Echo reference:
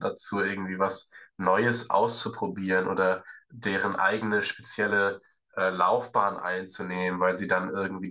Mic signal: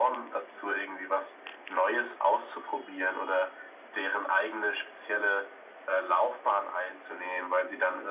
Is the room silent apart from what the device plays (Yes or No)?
Yes